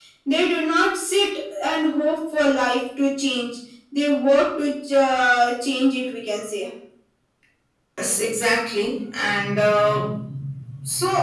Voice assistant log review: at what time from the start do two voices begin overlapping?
none

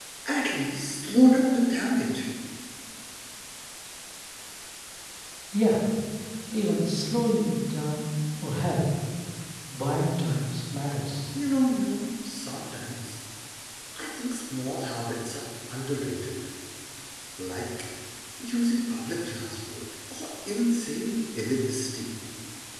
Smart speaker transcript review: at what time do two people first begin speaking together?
none

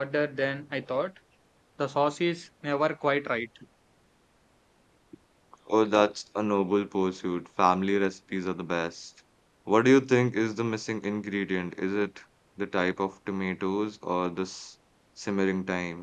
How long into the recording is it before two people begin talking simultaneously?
none

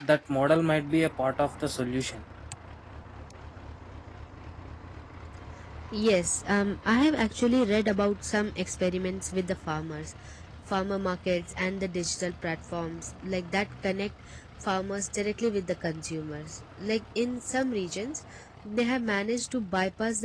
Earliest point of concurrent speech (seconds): none

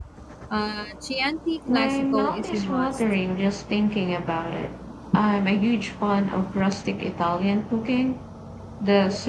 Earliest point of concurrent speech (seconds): 2 s

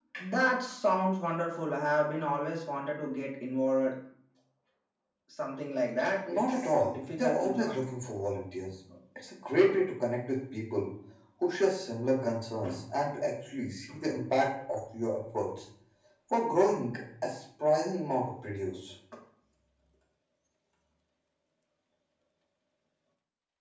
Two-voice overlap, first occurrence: 6 s

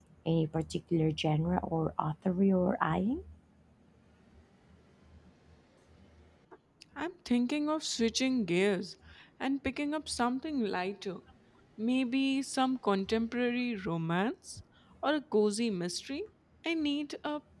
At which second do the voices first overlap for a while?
none

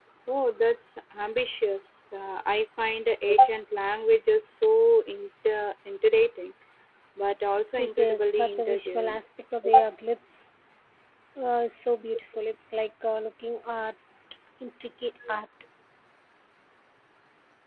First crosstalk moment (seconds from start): 8 s

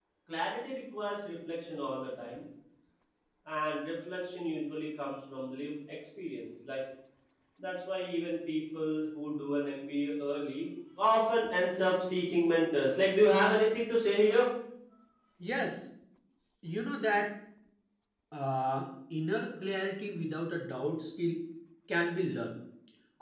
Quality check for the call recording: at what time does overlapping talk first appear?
none

